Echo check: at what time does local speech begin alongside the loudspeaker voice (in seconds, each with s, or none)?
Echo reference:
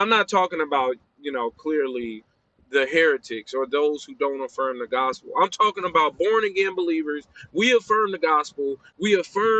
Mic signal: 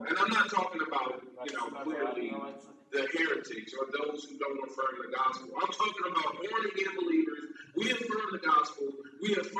1.4 s